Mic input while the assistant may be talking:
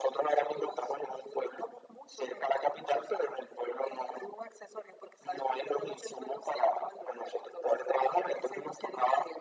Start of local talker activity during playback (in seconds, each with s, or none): none